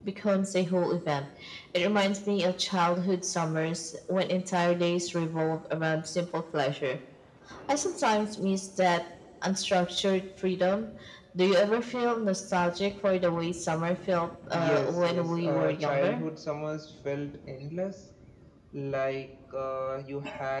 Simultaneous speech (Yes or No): Yes